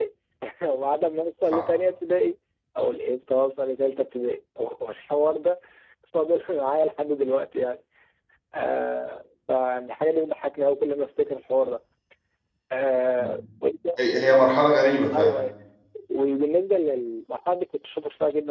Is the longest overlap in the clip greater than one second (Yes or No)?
No